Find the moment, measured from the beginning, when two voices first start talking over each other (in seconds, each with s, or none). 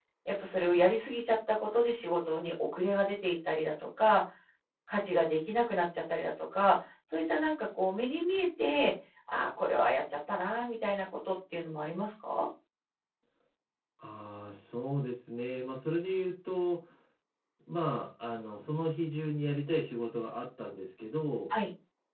none